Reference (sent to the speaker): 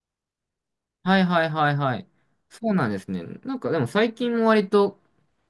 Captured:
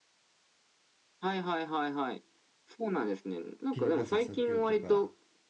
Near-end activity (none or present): present